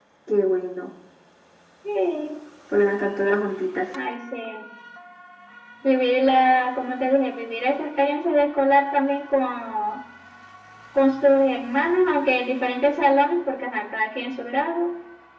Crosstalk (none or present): none